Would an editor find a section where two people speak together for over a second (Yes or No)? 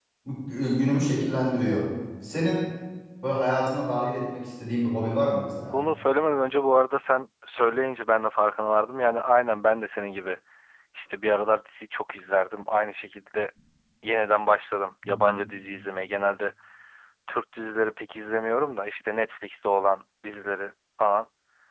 No